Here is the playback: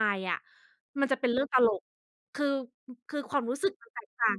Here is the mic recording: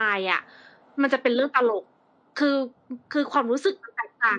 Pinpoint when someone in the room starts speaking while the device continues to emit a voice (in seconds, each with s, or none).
none